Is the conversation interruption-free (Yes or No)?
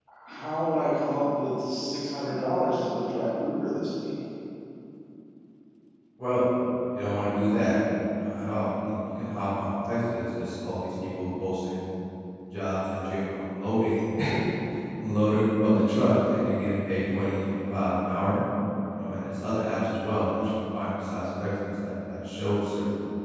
Yes